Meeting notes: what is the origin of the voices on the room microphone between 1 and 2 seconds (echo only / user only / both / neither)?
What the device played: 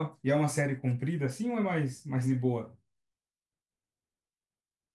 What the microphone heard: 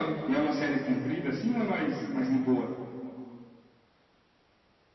echo only